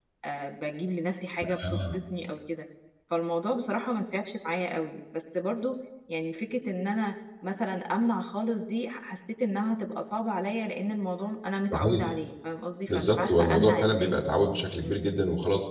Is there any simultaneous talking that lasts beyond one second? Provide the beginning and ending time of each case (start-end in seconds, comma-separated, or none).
12.8-14.1